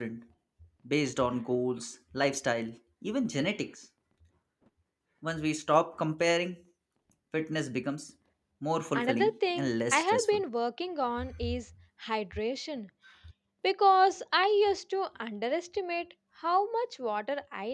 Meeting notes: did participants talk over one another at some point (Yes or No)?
Yes